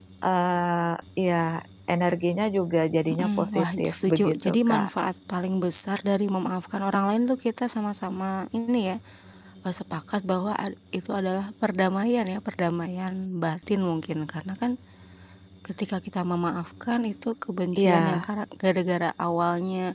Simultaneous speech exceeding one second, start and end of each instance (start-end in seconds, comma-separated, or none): 3.1-4.9